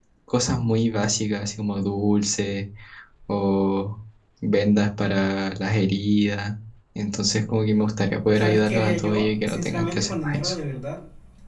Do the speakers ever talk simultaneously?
Yes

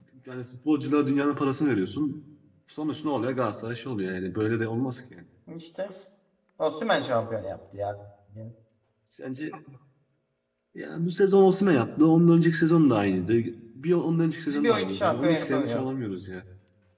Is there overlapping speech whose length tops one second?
Yes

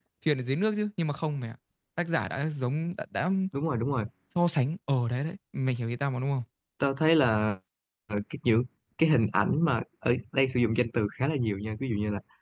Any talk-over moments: No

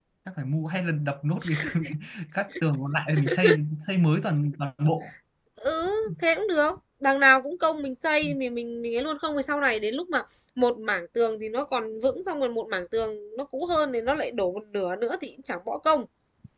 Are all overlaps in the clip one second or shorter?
Yes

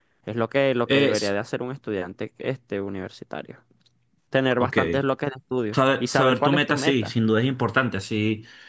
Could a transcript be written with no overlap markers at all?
No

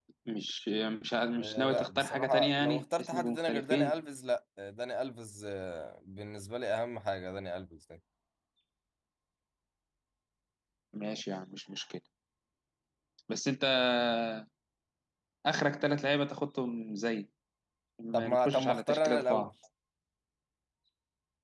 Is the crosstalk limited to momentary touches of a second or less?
No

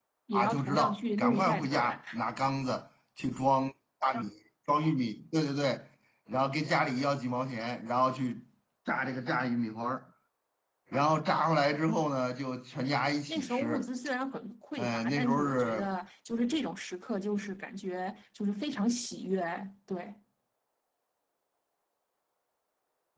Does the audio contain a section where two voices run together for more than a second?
Yes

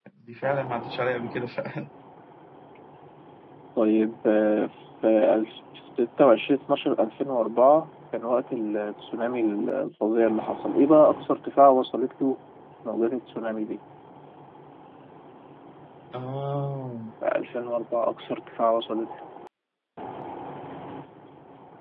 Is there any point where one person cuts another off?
No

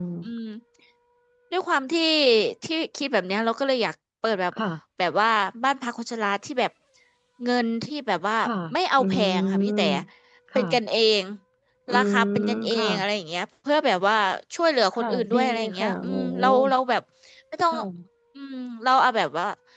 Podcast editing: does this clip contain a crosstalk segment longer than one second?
Yes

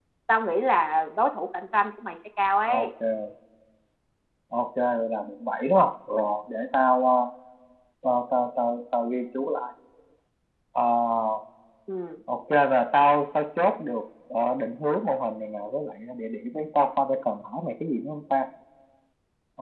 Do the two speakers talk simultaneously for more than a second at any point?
No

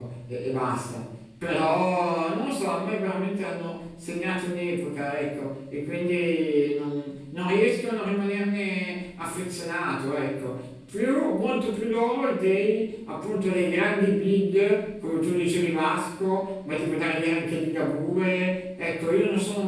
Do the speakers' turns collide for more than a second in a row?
No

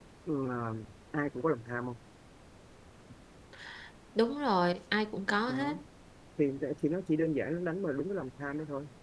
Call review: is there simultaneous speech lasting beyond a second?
No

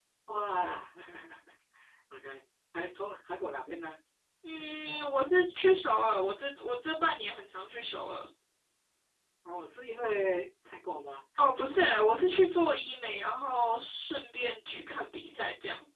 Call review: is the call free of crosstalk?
Yes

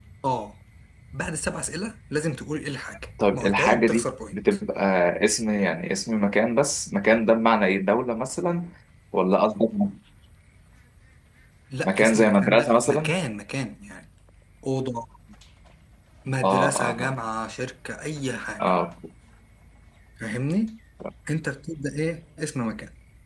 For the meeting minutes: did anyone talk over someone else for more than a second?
Yes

